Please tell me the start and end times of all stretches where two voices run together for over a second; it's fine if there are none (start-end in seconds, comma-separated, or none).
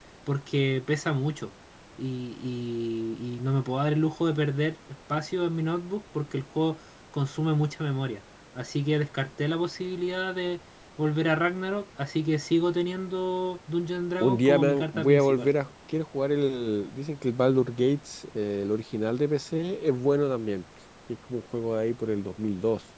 14.2-15.5